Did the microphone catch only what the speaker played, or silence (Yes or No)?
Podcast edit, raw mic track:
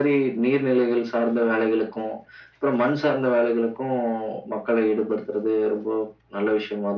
Yes